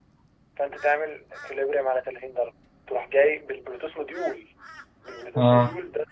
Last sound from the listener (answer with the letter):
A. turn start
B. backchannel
B